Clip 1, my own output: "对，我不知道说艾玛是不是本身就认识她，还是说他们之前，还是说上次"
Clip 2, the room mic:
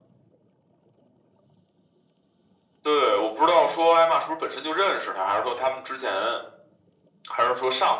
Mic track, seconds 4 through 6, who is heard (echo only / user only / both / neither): echo only